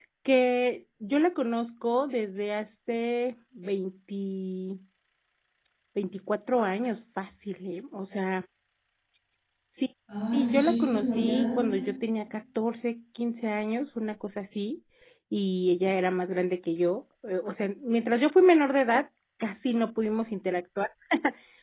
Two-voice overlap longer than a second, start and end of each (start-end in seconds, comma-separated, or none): 10.3-11.7